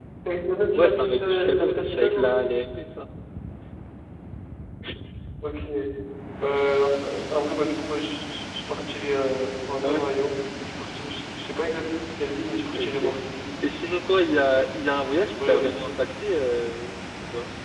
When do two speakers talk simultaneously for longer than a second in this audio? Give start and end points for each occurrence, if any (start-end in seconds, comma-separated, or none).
0.7-2.4